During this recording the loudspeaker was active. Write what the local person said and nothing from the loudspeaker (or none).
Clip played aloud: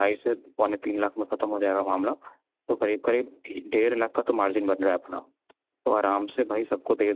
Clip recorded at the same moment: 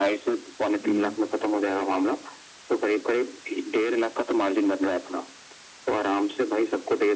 हम्म